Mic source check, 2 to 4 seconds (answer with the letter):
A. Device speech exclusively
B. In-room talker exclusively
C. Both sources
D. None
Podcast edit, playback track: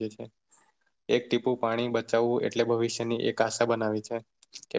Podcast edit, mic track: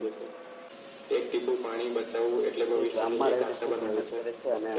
C